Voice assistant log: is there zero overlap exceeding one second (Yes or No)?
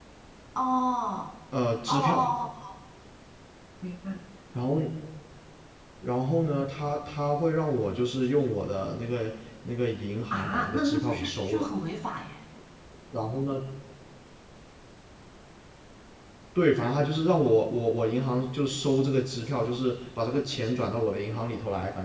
No